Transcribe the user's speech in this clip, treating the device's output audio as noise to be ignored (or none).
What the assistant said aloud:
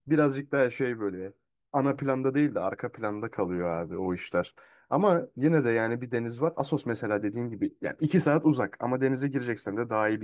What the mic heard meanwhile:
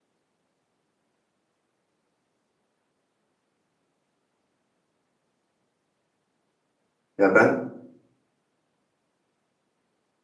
Ya ben